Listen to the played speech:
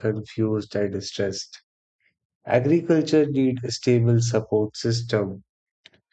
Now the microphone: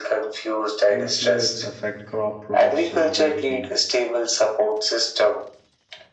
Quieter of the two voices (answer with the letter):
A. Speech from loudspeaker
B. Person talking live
B